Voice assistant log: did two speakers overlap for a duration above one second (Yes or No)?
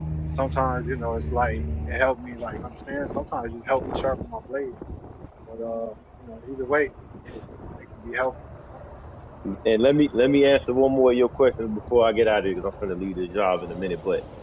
No